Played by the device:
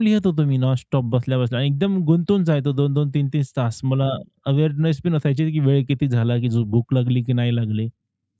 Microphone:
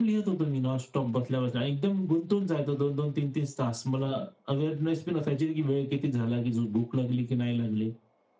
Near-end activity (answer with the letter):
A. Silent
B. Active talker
A